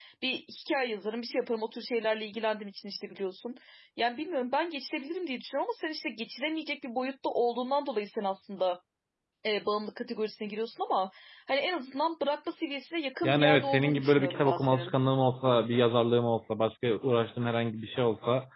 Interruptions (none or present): present